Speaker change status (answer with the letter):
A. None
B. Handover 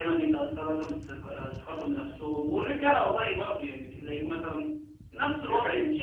A